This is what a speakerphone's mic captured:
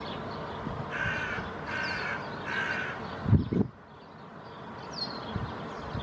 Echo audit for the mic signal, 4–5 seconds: neither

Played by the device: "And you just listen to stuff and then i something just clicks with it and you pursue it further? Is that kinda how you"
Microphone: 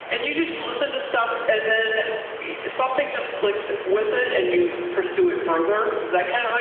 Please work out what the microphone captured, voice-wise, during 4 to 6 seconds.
echo only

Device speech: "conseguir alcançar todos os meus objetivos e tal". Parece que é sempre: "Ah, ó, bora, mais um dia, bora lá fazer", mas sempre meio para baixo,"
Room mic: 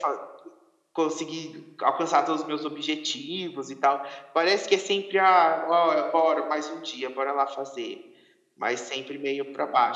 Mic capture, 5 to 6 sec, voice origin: echo only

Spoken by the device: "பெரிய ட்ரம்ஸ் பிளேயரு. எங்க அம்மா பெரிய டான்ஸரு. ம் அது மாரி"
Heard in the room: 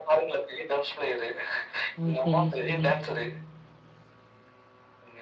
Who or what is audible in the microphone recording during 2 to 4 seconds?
both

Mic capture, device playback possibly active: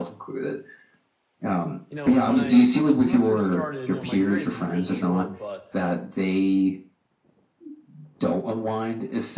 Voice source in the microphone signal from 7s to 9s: echo only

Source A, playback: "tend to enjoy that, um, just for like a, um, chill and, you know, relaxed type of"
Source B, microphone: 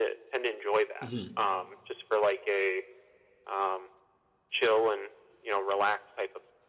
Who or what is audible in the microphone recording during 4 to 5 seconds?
echo only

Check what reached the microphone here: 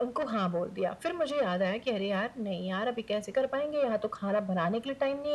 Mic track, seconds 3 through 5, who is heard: echo only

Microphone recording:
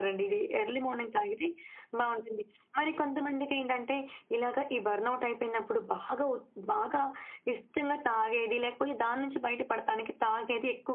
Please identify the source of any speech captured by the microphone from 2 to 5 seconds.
echo only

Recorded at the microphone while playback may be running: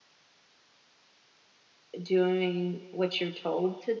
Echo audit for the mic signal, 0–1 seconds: neither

